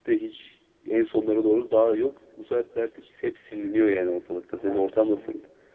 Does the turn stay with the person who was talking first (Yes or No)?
No